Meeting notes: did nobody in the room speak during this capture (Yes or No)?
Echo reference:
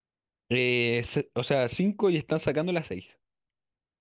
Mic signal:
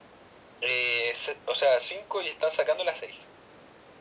Yes